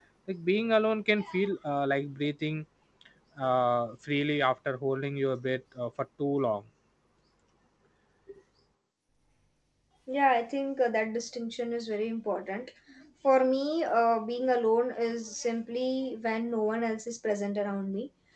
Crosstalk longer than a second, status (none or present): none